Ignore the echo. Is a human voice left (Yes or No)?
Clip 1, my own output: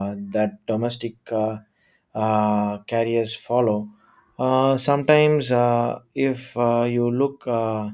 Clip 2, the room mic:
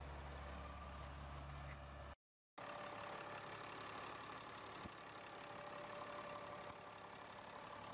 No